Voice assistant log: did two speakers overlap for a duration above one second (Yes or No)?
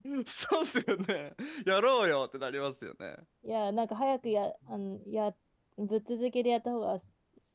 No